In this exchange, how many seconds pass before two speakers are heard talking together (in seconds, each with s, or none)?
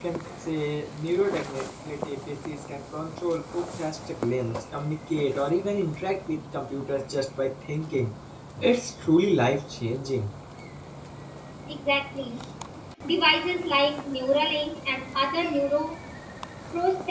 none